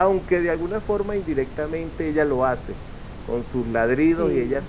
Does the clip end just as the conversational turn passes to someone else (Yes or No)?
No